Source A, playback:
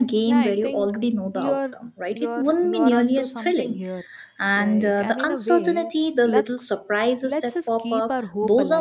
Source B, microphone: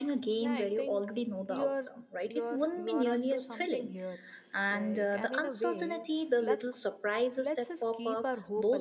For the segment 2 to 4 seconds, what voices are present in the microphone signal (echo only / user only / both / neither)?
echo only